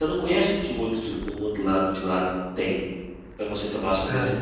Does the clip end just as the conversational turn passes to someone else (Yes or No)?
No